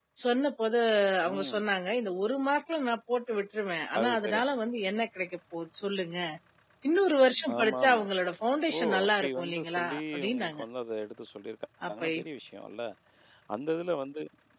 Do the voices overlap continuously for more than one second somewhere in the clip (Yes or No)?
Yes